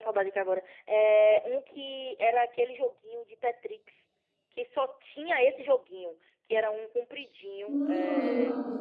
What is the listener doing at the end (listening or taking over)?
taking over